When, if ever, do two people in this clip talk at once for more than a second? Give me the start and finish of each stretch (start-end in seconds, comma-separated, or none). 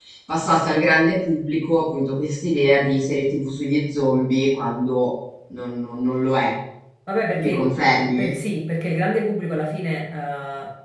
none